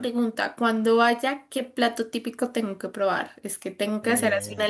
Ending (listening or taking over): listening